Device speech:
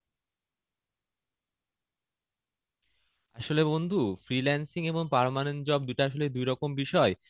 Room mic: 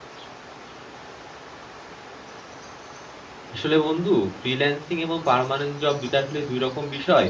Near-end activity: none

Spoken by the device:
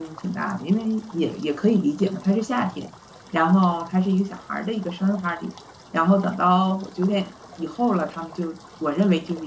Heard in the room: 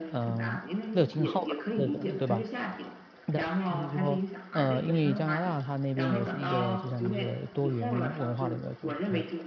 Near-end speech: present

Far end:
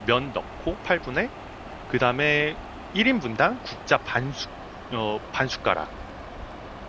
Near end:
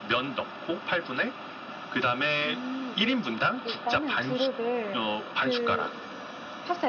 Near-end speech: present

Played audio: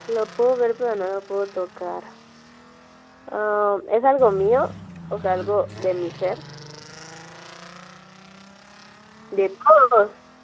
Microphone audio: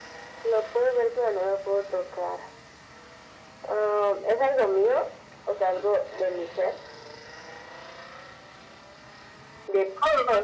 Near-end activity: none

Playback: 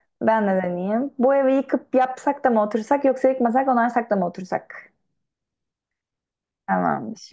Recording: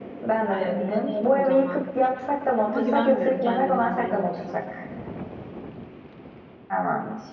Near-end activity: present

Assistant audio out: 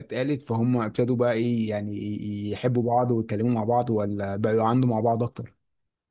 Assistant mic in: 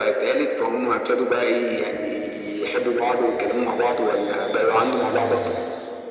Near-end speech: none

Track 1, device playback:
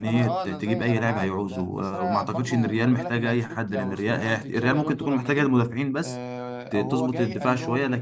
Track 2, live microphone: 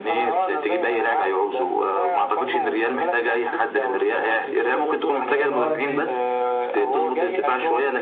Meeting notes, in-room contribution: present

